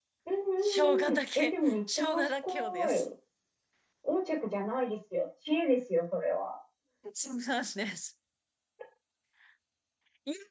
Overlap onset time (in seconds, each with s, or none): 0.6 s